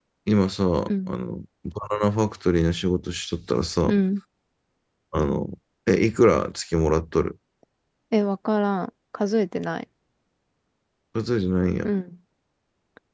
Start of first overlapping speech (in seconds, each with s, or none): none